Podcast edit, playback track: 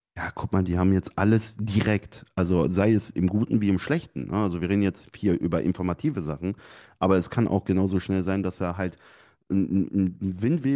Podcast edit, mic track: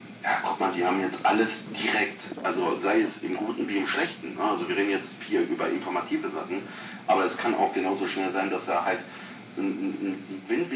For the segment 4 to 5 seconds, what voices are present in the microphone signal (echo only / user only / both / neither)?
echo only